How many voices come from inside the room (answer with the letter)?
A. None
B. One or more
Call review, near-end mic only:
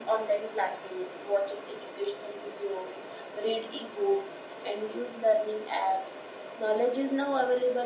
A